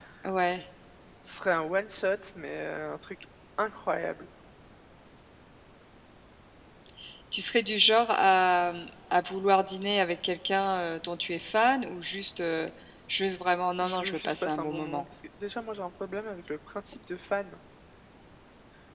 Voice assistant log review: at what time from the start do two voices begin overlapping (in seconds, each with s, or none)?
13.8 s